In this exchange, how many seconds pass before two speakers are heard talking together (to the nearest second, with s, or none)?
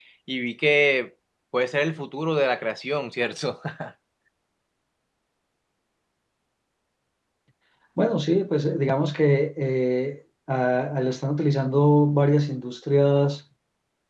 none